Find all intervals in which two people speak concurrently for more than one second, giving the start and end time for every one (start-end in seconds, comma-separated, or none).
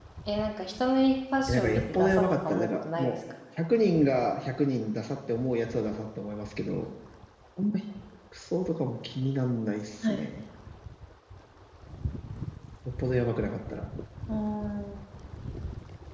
1.5-3.2